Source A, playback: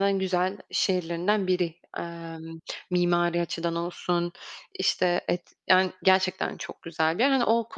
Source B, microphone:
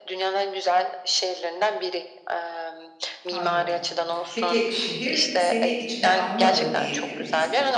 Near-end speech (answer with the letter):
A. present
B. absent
A